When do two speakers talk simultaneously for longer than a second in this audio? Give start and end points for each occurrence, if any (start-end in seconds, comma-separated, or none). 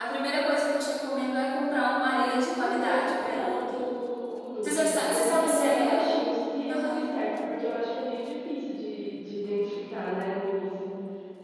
2.1-3.9, 4.6-6.1